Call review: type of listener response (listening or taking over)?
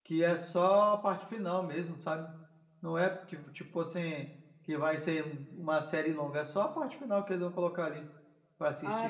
taking over